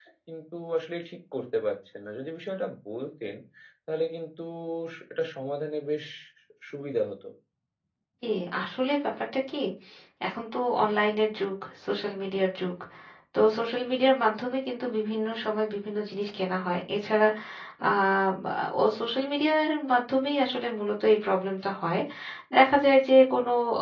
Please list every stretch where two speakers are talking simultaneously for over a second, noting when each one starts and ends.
none

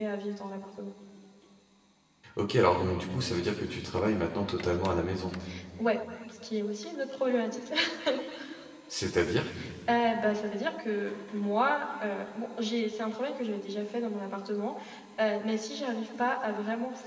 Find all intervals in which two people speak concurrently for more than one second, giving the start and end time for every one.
none

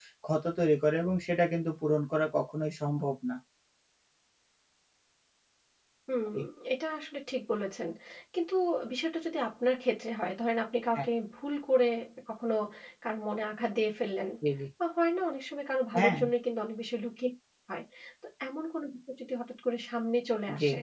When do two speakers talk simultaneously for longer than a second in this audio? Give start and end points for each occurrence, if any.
none

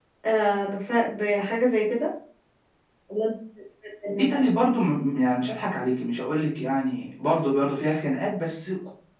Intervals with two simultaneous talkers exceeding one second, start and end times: none

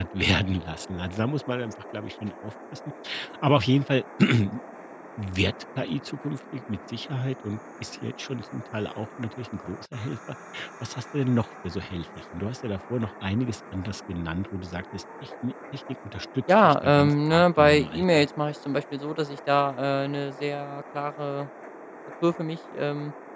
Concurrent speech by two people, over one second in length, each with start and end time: 16.6-18.3

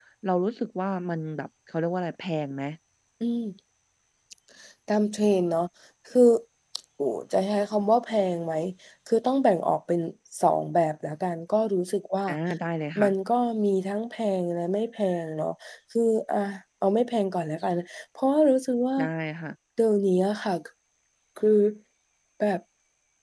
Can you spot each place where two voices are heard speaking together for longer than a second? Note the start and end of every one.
none

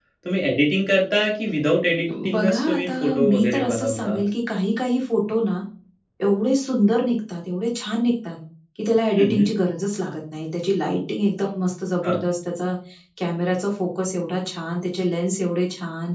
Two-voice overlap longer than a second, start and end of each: 2.3-4.2

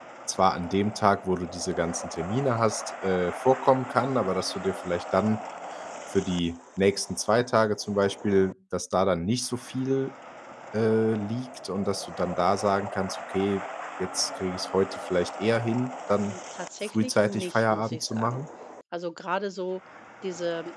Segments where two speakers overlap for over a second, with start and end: 16.9-18.4

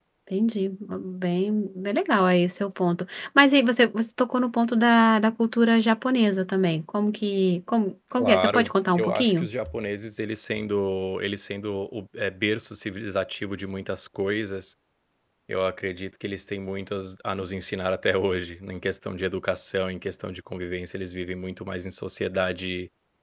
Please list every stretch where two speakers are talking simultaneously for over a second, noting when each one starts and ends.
8.2-9.5

